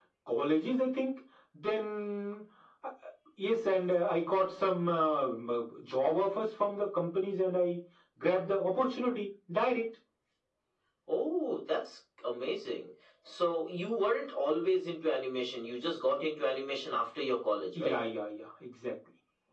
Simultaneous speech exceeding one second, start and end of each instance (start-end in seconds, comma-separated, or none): none